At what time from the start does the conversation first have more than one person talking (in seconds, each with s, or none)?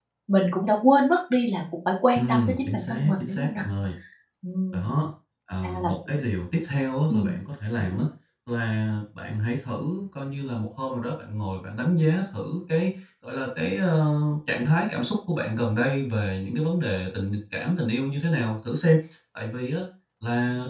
2.1 s